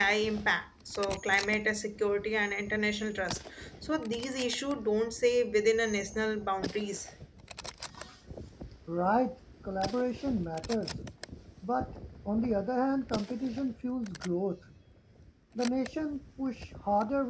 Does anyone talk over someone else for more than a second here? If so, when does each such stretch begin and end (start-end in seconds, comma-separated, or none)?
none